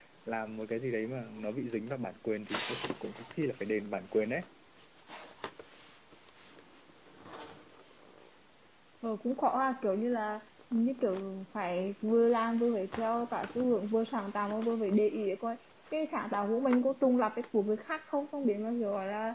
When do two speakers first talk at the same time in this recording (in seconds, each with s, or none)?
none